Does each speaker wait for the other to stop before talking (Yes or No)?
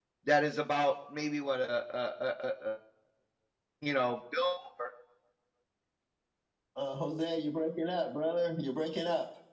Yes